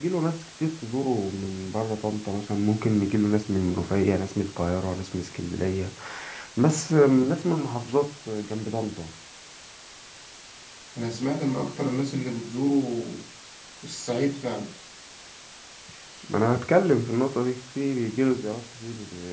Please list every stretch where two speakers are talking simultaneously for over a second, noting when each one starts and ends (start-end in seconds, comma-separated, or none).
none